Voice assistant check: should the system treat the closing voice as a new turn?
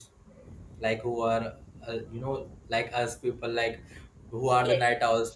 No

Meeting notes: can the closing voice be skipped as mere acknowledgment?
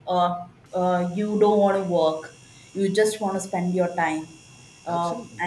Yes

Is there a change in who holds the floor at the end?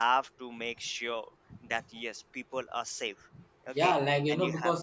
Yes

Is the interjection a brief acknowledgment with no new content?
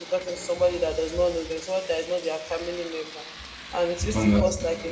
Yes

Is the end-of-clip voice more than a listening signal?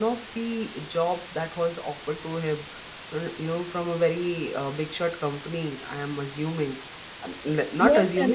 Yes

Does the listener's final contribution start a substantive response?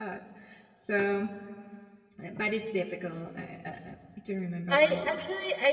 Yes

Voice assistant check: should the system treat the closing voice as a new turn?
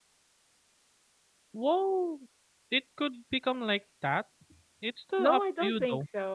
Yes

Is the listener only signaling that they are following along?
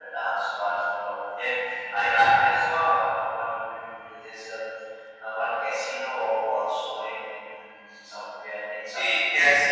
No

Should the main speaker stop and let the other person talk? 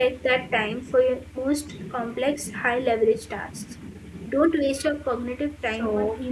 Yes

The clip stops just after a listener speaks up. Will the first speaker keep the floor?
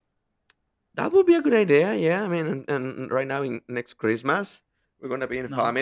Yes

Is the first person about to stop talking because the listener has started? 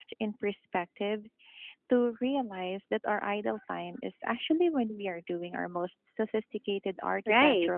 Yes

